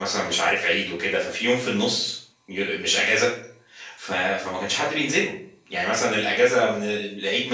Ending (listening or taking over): listening